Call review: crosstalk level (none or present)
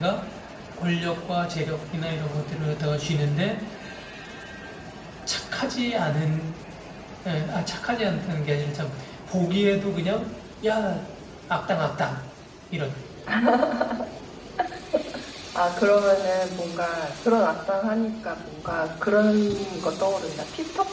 none